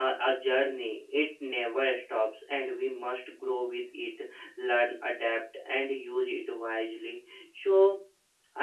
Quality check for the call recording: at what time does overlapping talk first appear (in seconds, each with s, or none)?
none